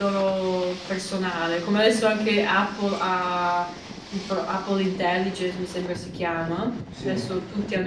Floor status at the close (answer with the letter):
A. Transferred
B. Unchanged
B